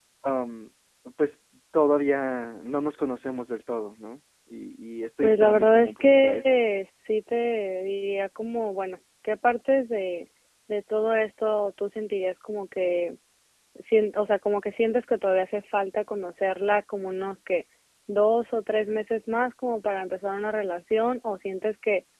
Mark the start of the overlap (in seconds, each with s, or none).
5.2 s